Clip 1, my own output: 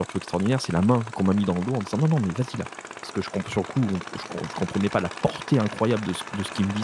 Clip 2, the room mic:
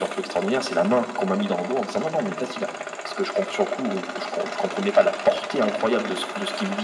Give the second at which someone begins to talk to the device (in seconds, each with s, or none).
none